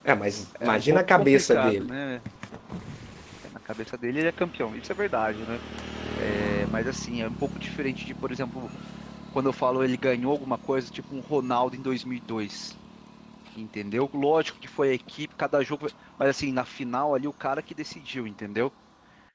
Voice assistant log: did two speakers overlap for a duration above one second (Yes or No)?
Yes